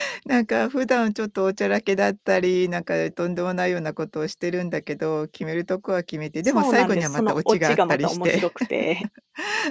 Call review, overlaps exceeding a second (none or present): present